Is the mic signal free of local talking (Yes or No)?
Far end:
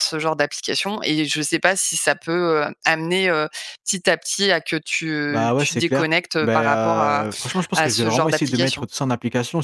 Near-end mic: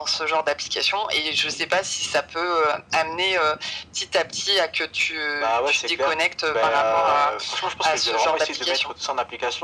Yes